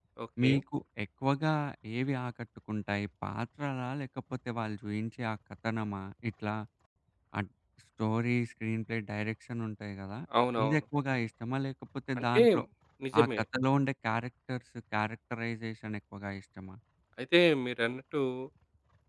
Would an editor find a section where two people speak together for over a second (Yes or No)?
No